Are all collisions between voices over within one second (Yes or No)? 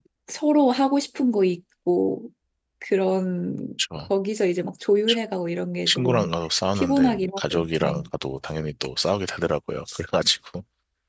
No